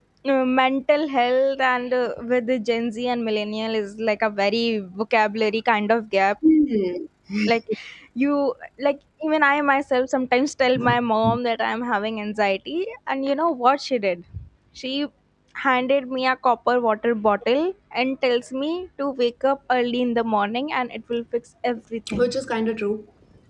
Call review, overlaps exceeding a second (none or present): none